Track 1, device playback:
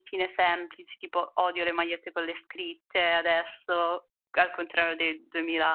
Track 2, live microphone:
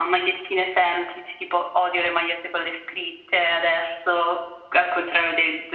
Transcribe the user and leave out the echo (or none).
none